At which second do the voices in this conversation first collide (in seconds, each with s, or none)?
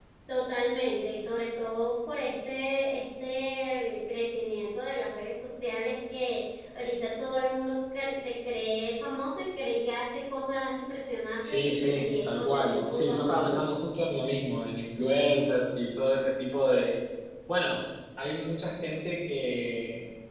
11.4 s